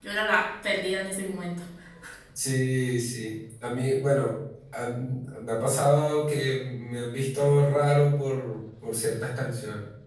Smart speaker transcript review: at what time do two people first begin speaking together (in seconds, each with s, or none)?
none